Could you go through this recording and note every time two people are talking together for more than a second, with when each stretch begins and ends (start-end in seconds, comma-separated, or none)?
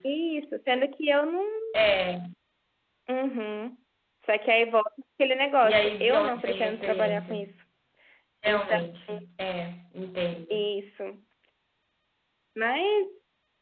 5.6-7.3